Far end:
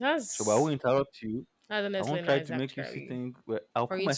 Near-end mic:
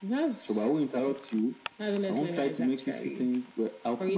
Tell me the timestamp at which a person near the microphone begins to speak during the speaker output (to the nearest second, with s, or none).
none